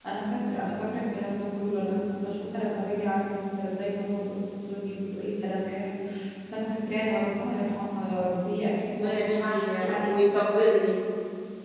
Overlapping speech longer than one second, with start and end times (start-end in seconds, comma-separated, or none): 8.9-10.1